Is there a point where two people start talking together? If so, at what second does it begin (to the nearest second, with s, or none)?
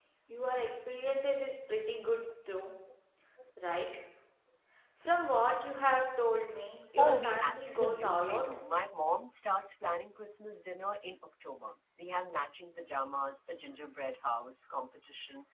7 s